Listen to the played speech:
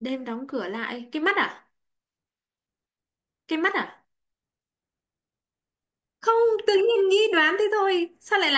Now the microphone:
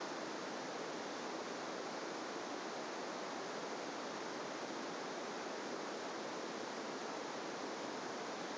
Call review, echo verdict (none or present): none